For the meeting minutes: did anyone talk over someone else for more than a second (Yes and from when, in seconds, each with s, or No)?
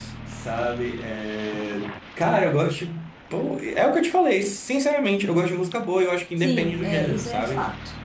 Yes, from 6.4 s